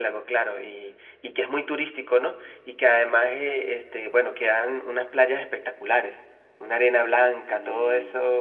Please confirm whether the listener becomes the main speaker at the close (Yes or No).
No